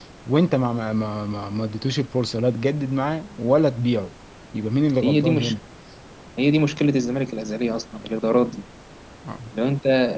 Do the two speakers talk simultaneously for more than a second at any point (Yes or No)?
No